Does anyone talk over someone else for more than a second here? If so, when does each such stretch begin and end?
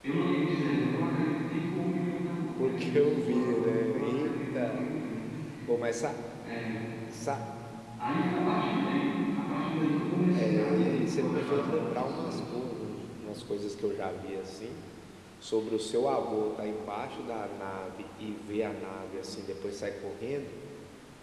2.6-4.8, 10.3-12.5

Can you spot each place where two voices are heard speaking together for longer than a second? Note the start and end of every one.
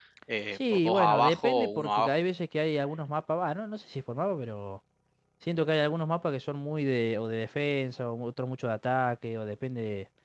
0.5-2.2

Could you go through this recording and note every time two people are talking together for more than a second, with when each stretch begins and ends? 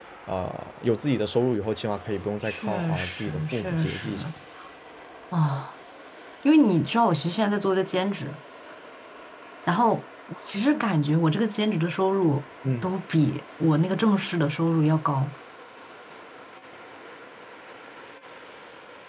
2.4-4.3

